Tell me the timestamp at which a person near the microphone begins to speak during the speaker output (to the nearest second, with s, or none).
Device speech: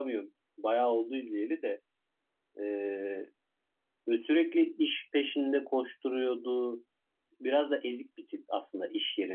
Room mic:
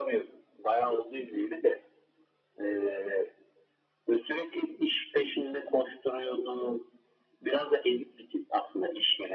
none